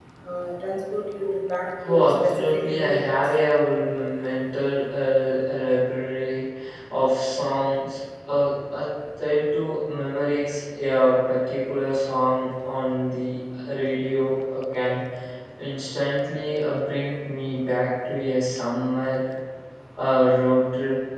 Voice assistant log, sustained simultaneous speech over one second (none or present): present